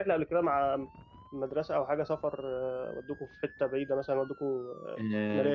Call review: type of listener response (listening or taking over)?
taking over